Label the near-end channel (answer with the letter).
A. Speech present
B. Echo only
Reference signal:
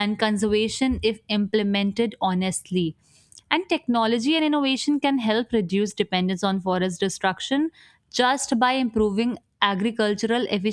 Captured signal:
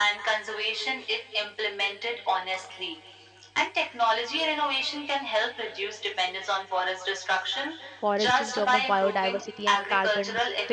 A